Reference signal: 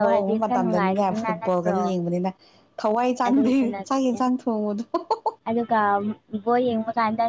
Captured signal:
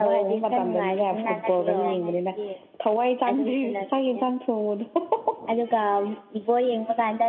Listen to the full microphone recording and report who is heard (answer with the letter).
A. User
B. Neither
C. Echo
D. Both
D